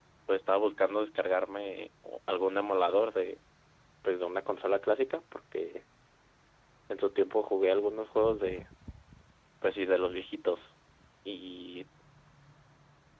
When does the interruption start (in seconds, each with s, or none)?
none